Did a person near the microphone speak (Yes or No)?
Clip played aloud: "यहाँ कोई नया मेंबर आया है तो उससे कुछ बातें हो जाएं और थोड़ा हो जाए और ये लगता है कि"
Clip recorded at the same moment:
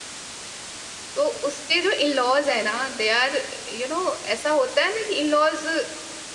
Yes